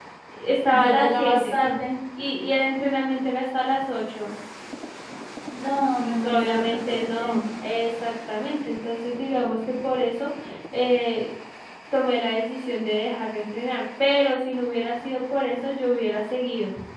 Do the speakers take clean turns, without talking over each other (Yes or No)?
No